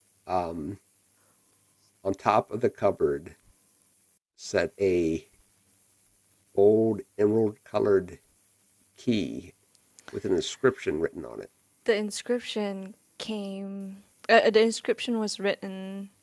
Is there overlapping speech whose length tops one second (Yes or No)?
No